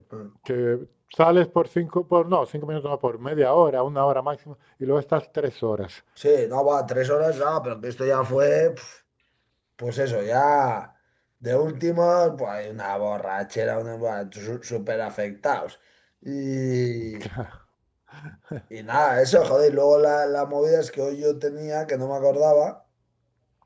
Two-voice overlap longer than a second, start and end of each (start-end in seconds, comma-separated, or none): none